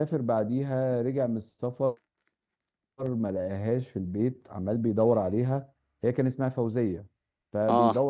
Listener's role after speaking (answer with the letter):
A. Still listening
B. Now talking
A